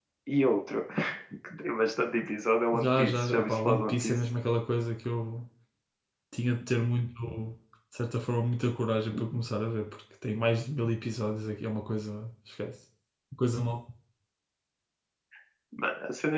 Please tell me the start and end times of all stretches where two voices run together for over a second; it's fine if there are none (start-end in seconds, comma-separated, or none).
2.7-4.2